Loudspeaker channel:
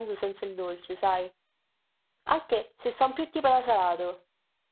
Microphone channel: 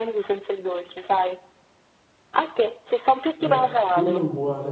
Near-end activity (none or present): present